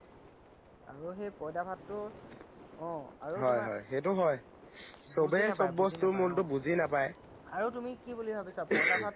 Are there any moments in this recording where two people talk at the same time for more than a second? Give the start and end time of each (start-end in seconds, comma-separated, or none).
5.2-6.4